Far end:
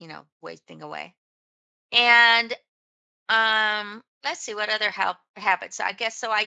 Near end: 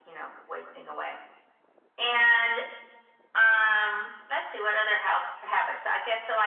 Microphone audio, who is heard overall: echo only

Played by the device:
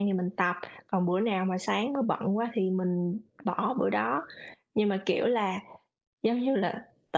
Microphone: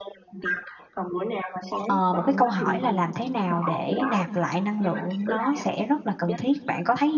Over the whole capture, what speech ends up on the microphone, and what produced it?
both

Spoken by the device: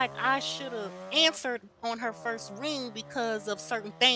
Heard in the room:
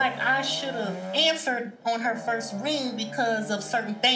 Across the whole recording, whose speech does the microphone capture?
echo only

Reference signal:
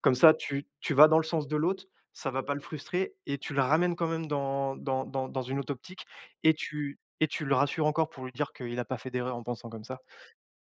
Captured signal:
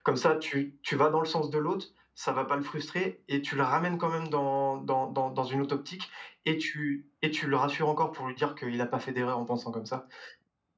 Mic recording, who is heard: echo only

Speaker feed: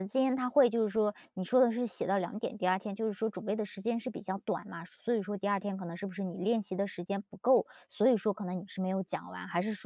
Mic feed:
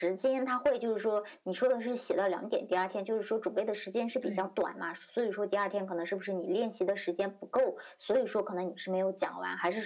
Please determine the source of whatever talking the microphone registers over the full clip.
both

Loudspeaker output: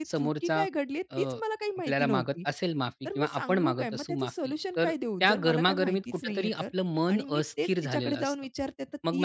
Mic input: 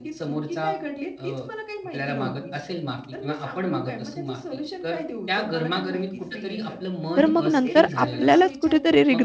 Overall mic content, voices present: both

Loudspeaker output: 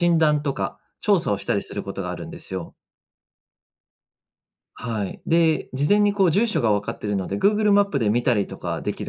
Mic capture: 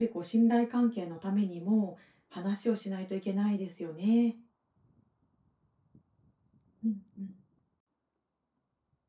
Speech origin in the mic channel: user only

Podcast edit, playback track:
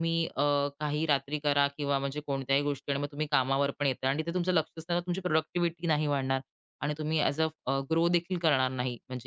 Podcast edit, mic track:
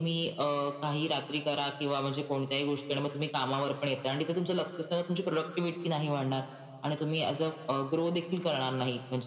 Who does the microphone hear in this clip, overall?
echo only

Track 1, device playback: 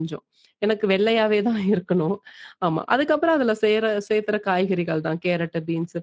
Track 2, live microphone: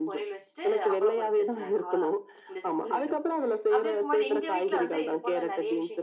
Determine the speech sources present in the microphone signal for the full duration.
both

